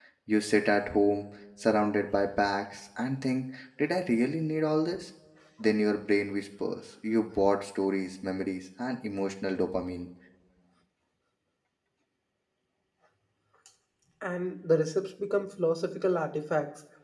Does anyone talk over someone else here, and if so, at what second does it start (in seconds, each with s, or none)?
none